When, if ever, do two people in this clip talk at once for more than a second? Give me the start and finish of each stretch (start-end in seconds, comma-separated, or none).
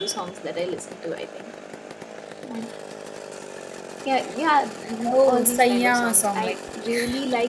5.1-6.6